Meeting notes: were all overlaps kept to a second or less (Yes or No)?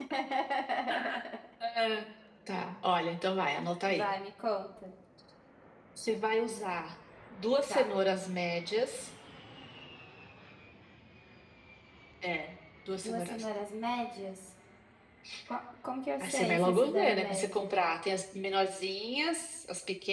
No